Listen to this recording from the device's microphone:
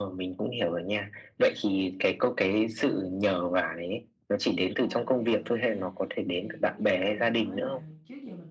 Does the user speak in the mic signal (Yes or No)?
Yes